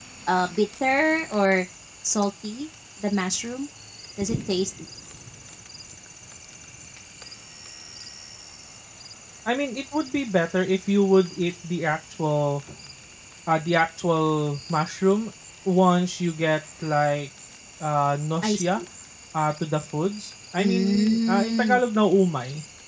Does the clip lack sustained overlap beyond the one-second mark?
No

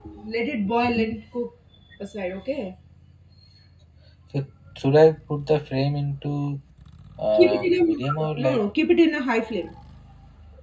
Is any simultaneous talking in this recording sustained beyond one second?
Yes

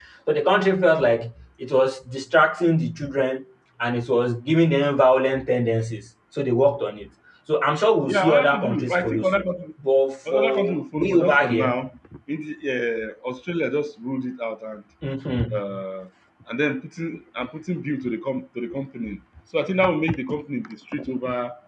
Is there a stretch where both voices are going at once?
Yes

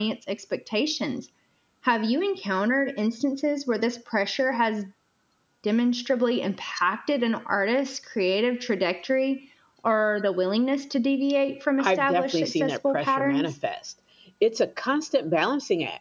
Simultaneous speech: Yes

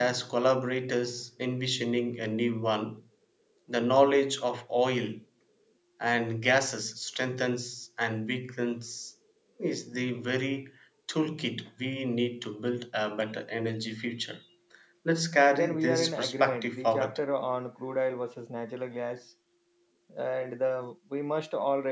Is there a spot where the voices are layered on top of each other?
Yes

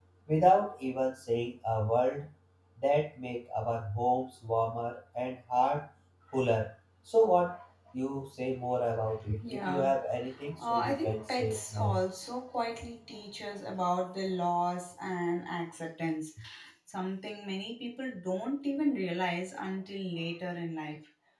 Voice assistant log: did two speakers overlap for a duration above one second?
Yes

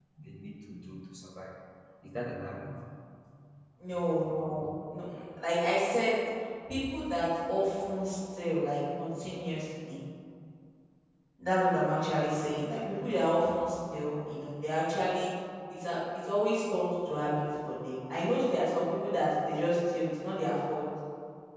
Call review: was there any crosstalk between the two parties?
No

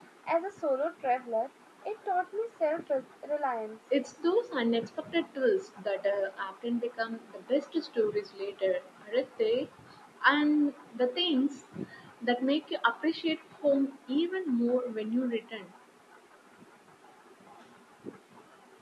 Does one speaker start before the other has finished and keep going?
No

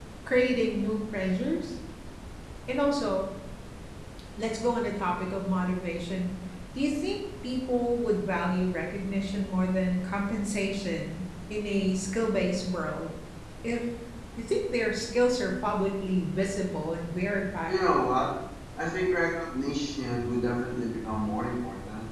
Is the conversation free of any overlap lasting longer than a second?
Yes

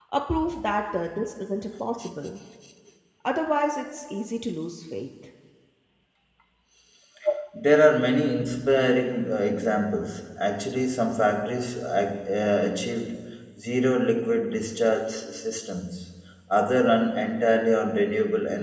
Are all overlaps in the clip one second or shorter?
Yes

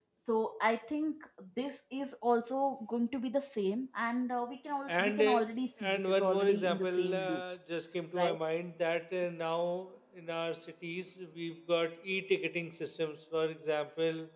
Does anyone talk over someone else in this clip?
Yes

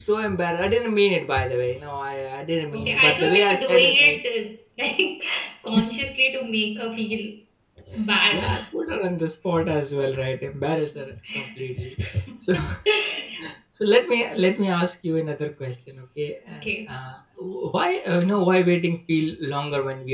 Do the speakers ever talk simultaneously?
Yes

